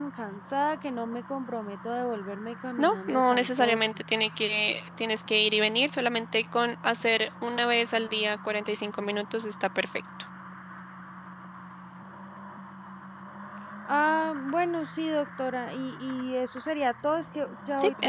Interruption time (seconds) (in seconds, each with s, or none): 2.8 s